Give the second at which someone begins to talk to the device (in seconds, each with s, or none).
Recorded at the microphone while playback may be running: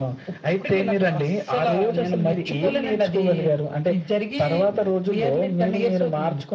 none